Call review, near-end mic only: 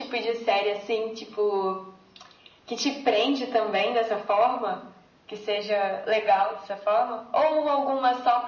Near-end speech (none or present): none